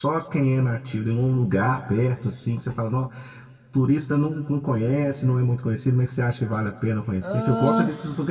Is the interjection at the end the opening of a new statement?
No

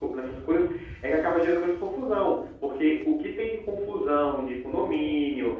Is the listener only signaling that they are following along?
Yes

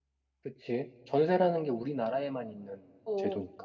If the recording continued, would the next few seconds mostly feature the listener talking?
Yes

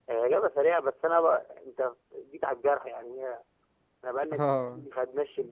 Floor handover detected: No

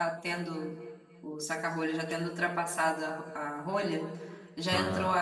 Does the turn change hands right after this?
No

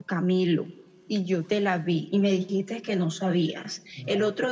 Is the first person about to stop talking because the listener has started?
No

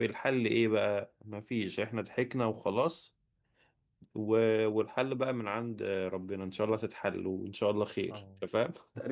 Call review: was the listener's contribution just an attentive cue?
No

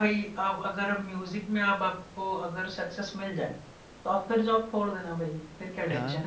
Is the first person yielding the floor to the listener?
Yes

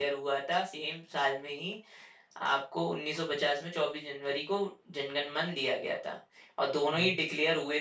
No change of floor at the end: Yes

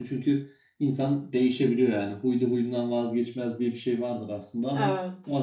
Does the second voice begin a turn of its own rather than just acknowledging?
No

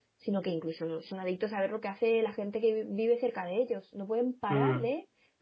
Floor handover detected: No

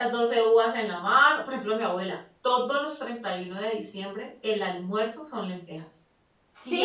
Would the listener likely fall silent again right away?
Yes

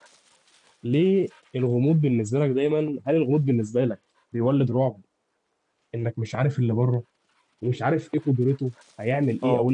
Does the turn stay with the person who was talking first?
No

